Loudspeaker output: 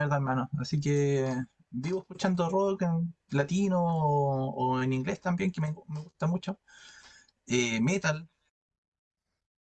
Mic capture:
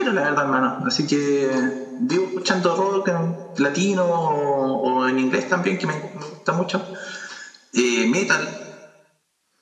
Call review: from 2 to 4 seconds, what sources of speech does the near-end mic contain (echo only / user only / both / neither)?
echo only